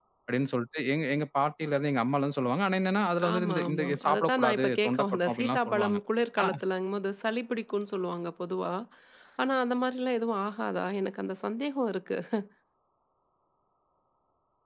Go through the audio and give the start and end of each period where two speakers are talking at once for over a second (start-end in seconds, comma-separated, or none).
3.3-6.0